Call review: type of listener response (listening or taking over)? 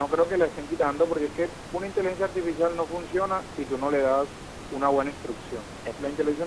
listening